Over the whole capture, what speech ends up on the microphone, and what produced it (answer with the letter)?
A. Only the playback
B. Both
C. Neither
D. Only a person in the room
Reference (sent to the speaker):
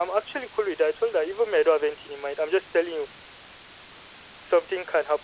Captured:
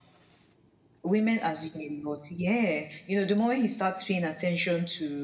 D